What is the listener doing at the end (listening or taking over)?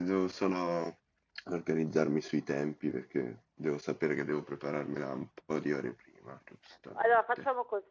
taking over